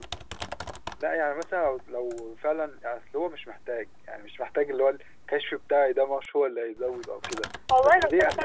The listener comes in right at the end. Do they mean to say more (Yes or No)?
Yes